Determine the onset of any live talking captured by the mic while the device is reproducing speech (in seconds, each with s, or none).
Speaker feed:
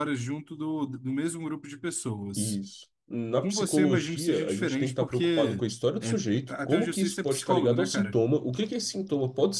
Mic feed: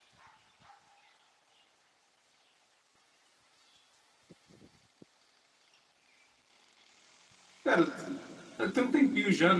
7.6 s